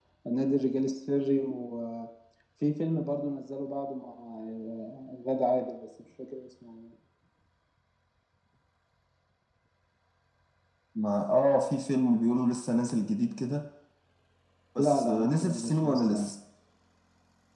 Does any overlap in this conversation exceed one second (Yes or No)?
Yes